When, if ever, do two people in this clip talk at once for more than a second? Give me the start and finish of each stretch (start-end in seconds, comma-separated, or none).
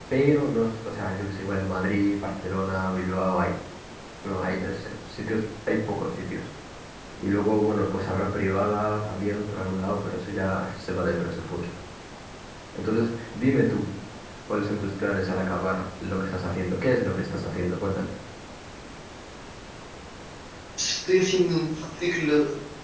none